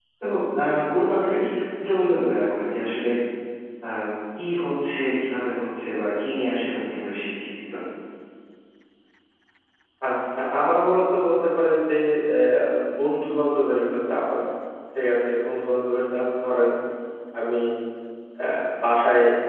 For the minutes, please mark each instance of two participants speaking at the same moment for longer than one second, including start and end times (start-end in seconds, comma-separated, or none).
none